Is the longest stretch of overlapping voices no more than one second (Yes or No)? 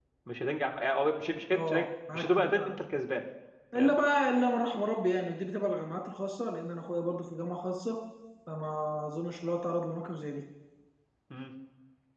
Yes